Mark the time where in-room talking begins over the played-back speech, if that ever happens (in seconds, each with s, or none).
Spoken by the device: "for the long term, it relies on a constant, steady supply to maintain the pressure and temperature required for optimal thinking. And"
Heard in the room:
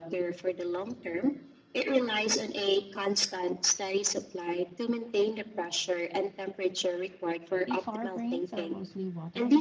7.6 s